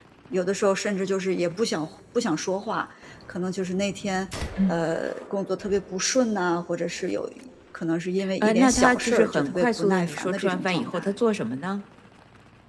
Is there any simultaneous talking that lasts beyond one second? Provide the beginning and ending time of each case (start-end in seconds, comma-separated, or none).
8.4-11.2